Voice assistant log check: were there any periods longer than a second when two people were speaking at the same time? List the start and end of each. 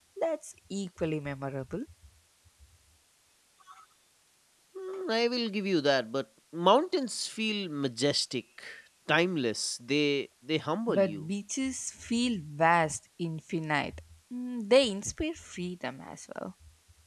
none

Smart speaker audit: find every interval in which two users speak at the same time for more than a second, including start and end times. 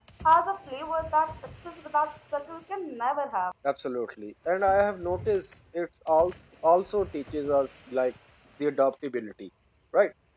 none

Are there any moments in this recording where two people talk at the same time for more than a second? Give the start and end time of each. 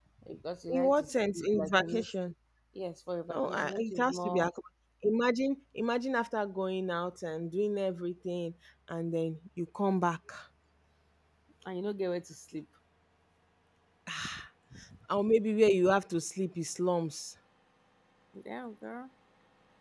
0.7-2.1, 3.3-4.5

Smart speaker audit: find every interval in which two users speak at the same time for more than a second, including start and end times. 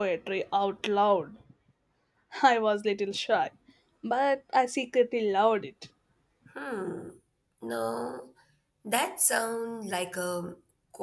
none

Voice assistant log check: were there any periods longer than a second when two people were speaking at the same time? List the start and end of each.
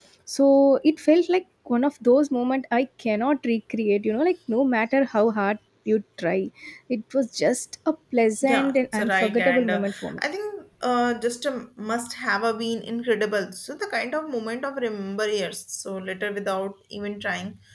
8.4-10.2

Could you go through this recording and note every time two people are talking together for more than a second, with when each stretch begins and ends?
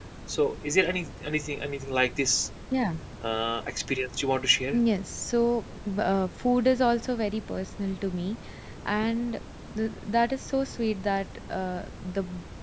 none

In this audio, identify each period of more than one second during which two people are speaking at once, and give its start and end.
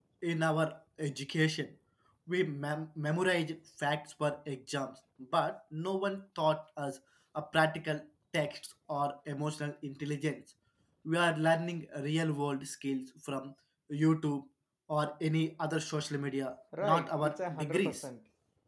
16.8-18.1

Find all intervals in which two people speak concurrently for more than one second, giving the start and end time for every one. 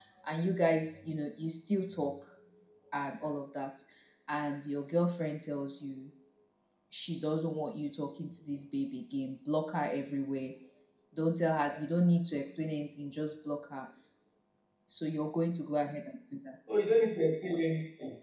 none

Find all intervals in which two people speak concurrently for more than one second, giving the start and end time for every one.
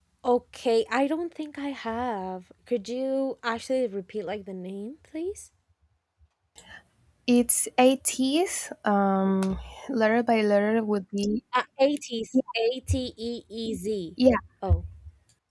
none

